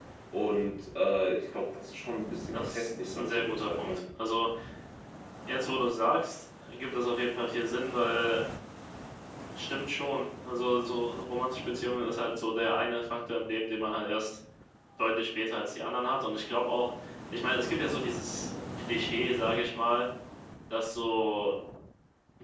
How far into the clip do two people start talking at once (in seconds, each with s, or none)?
2.5 s